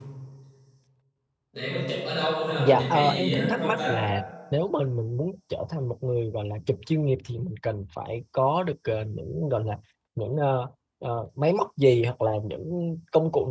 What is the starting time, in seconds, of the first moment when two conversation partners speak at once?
2.6 s

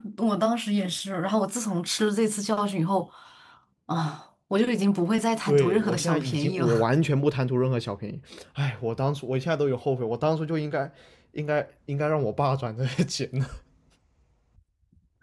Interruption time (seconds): 5.5 s

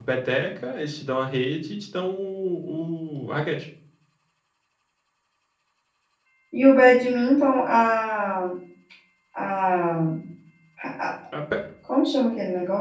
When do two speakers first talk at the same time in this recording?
none

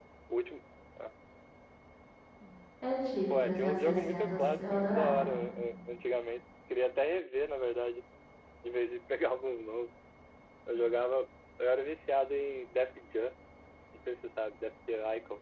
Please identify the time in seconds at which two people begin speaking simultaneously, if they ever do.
3.3 s

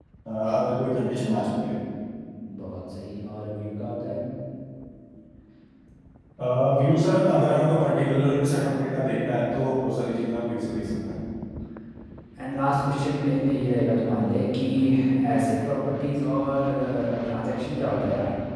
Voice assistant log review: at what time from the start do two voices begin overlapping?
none

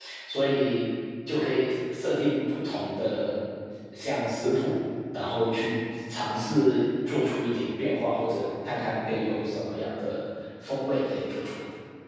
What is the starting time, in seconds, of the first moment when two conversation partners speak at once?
none

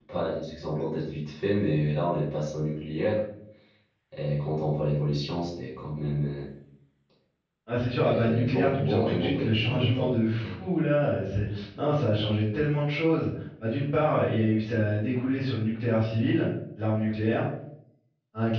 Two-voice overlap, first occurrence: 8.0 s

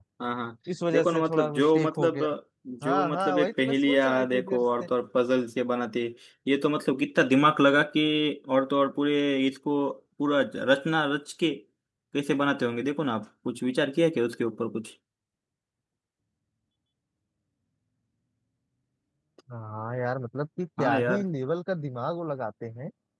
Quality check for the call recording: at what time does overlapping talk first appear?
0.9 s

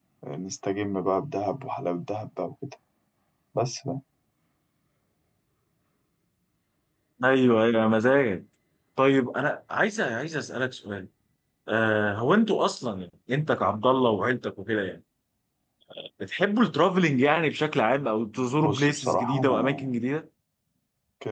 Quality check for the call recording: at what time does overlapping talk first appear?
18.6 s

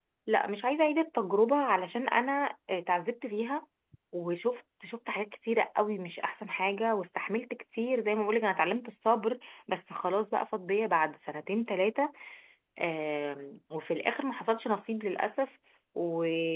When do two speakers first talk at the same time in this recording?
none

